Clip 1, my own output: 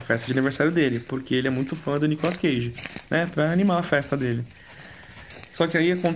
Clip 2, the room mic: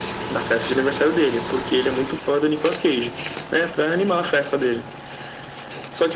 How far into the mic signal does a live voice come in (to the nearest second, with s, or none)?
none